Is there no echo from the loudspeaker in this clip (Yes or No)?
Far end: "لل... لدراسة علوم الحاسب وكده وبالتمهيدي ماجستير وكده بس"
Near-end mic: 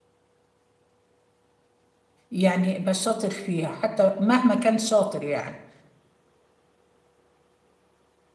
Yes